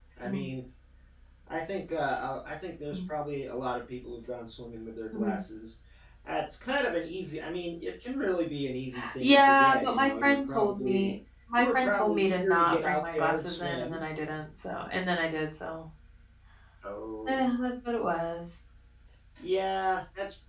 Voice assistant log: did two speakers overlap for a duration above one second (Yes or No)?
Yes